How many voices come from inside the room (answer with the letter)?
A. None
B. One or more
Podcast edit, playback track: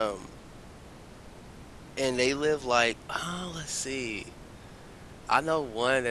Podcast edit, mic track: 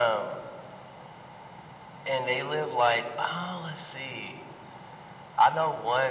A